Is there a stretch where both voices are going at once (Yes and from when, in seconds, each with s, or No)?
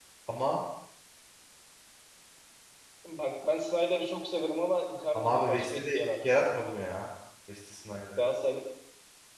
Yes, from 5.2 s